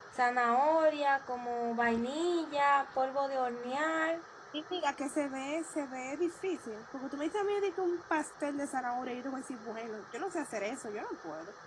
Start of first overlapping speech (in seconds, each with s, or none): none